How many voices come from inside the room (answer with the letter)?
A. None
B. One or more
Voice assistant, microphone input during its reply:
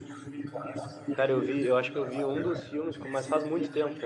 B